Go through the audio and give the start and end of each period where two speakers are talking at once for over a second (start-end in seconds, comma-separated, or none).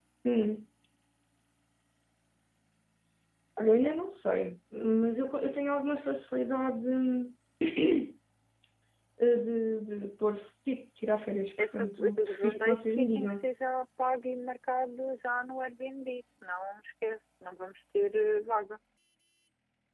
11.6-13.4